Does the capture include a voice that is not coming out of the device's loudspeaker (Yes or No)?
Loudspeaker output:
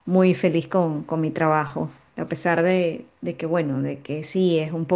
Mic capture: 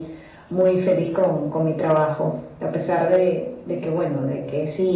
No